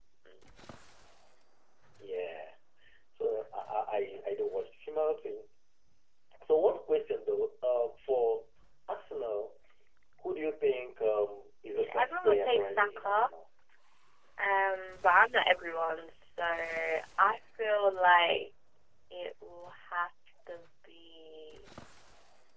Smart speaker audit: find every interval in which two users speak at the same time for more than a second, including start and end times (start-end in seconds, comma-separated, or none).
11.7-13.3